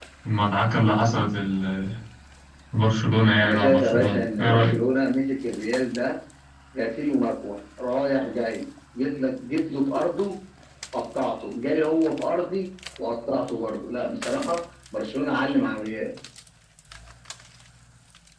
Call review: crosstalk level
present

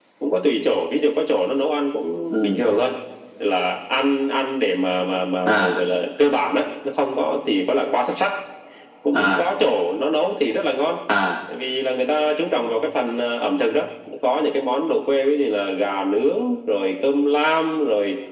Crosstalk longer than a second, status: none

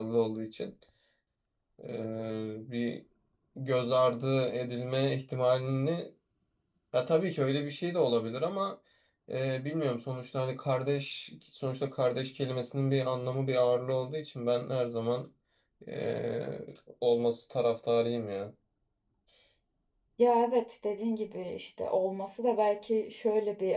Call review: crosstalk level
none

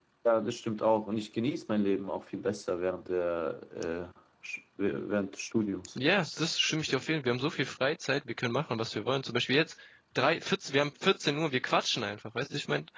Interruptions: none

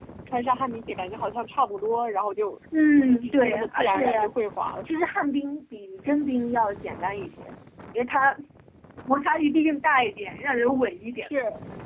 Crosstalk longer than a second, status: present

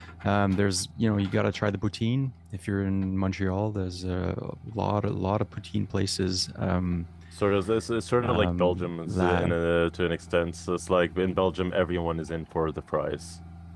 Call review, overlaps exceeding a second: present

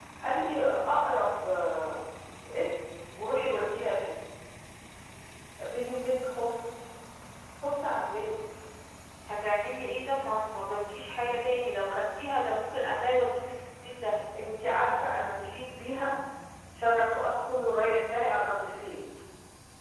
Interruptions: none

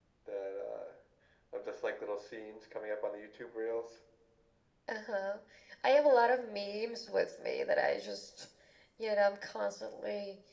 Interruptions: none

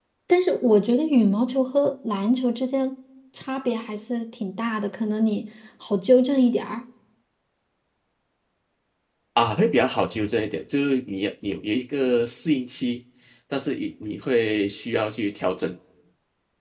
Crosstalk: none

